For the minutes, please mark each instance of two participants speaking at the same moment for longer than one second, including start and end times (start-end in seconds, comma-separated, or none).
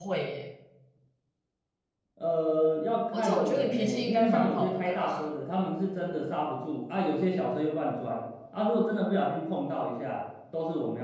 3.1-5.1